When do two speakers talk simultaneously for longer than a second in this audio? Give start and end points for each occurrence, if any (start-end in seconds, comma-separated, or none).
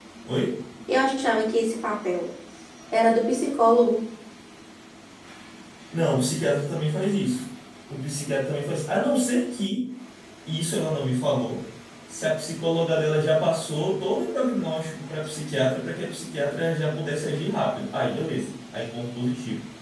none